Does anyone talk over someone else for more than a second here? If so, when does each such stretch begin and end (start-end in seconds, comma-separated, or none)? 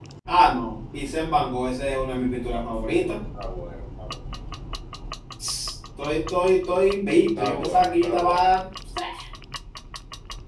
7.2-8.5